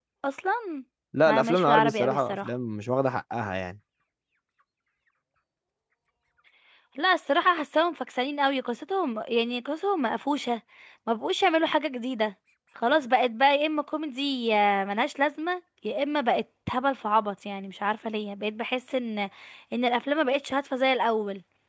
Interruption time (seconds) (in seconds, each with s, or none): 1.3 s